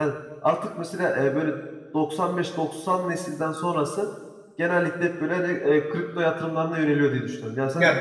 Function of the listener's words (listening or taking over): taking over